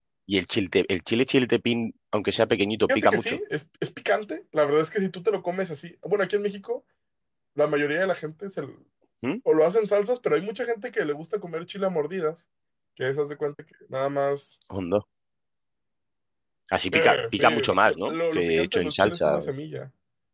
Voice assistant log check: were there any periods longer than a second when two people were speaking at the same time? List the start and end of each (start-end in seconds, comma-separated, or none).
16.9-19.4